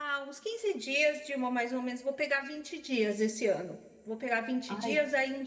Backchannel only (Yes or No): Yes